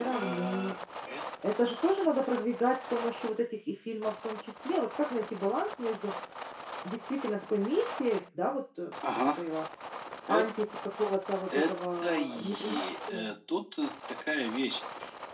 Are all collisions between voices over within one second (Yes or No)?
No